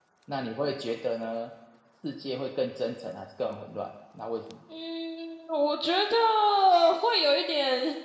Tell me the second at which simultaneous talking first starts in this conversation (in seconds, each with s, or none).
none